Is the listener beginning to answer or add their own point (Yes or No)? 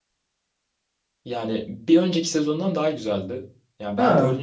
No